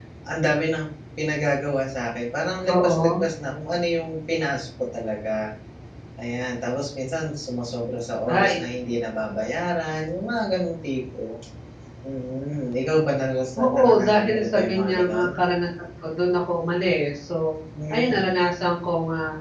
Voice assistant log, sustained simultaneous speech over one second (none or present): present